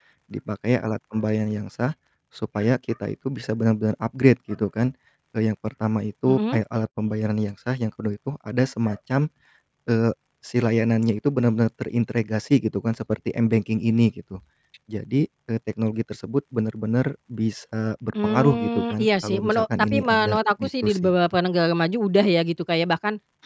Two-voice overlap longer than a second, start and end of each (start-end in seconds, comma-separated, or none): 18.2-21.1